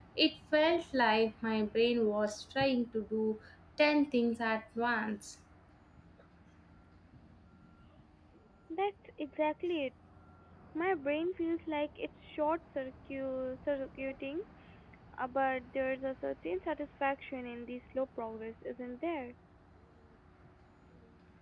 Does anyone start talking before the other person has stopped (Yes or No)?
No